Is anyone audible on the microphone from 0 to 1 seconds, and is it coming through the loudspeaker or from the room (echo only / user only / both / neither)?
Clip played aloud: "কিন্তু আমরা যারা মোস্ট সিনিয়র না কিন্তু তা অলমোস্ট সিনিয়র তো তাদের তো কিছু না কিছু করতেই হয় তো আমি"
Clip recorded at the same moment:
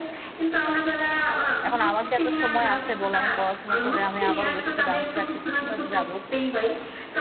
echo only